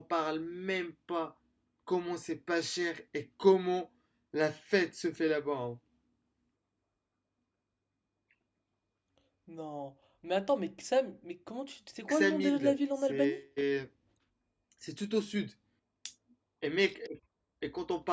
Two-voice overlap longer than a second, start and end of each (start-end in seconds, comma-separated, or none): 12.1-13.4